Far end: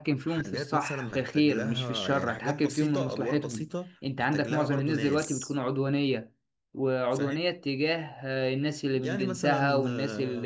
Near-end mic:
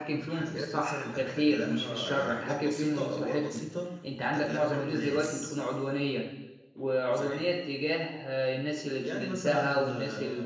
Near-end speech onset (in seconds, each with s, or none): none